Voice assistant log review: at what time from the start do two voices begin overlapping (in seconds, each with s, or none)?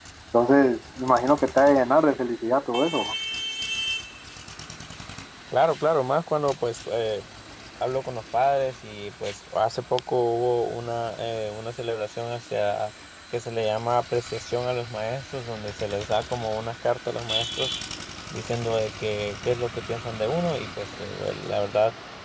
none